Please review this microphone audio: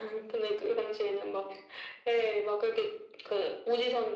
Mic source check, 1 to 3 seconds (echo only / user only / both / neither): echo only